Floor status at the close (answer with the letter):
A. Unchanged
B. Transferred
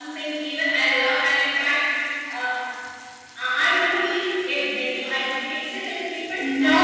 B